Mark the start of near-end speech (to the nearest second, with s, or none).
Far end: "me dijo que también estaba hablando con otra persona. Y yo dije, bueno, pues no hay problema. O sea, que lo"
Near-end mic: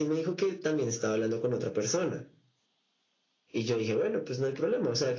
none